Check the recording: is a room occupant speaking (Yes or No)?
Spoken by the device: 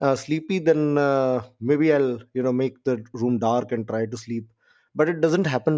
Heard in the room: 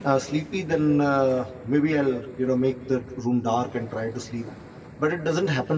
No